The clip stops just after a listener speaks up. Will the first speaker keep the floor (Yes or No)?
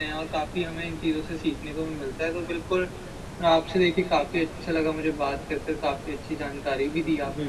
Yes